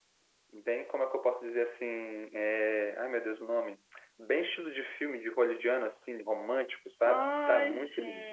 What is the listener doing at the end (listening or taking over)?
taking over